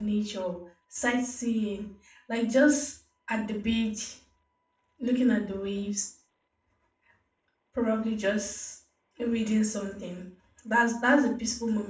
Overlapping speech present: No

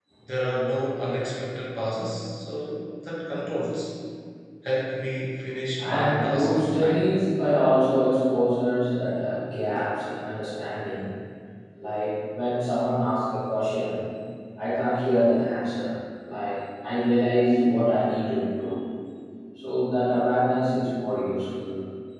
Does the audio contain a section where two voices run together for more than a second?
Yes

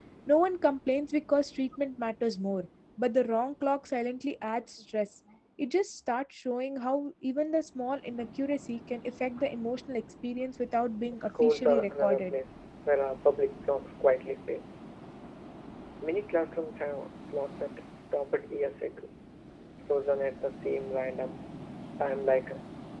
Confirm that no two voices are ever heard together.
No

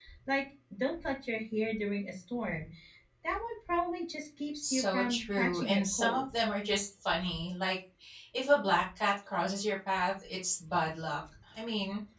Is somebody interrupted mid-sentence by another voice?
Yes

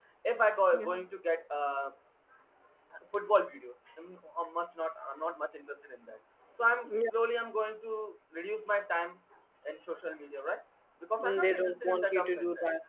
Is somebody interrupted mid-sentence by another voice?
Yes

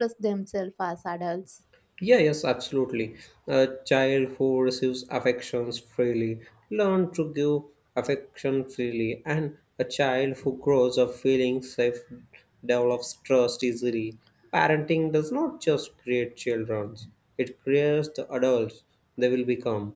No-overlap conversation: Yes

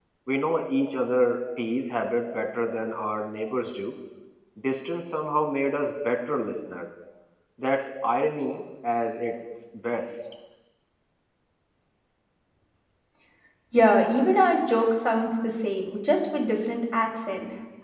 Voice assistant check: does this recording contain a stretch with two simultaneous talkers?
No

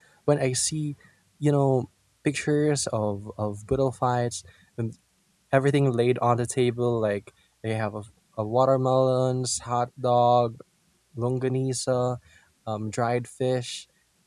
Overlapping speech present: No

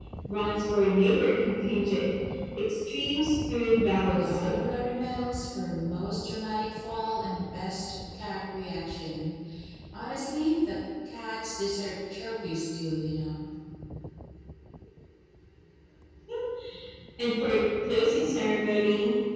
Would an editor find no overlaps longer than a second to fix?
Yes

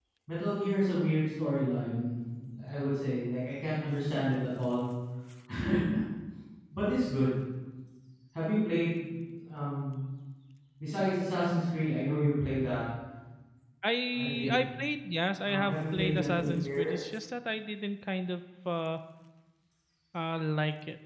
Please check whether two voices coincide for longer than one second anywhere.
Yes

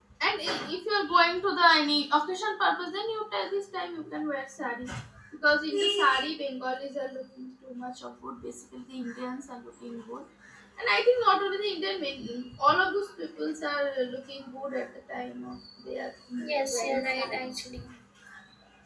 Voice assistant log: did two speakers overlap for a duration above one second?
Yes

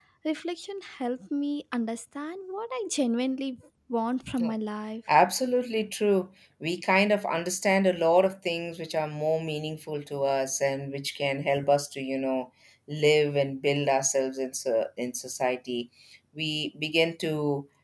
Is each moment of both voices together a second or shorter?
Yes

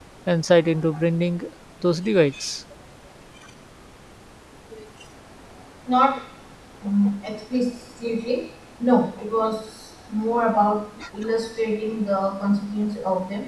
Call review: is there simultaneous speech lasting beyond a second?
No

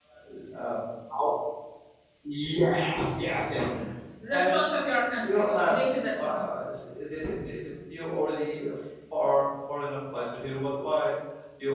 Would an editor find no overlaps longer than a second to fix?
No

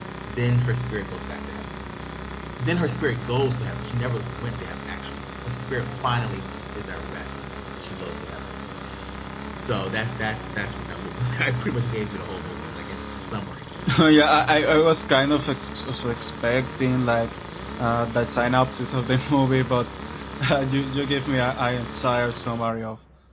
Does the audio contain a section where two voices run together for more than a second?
No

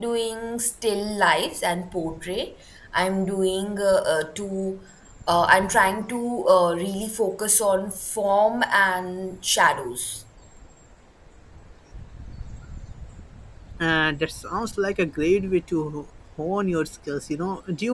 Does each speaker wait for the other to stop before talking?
Yes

